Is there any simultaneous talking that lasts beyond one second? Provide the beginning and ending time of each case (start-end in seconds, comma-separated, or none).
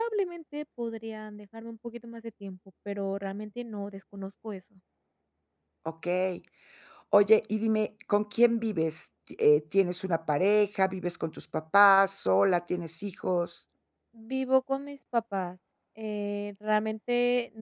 none